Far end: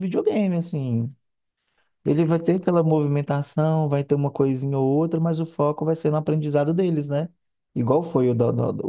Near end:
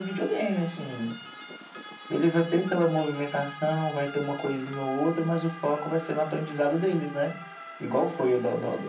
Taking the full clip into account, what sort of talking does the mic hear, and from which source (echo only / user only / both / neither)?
echo only